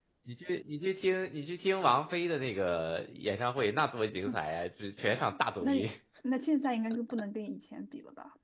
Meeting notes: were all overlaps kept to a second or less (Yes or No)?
Yes